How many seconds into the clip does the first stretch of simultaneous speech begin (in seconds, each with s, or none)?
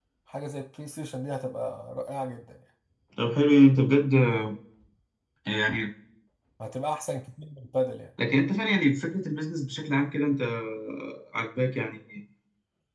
none